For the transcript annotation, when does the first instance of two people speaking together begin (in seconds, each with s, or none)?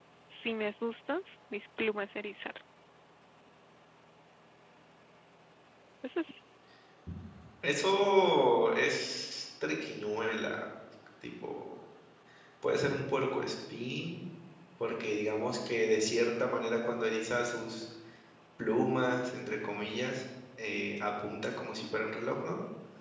none